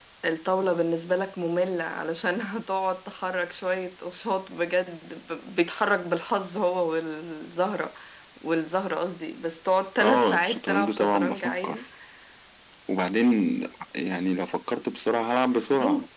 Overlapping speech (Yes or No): Yes